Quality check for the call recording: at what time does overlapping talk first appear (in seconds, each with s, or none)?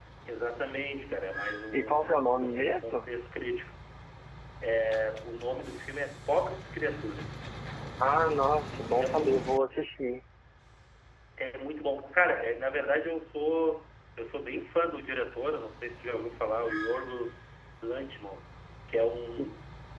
1.7 s